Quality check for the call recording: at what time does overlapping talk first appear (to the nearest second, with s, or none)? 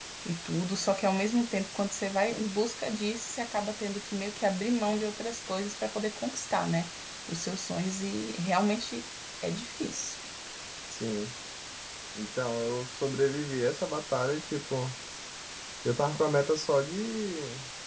none